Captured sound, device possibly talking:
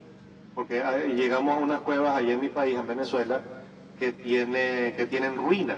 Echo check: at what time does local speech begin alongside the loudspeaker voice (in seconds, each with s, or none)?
none